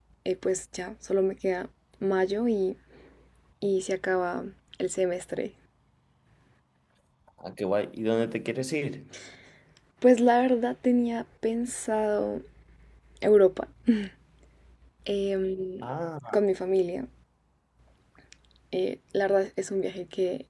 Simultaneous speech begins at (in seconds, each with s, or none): none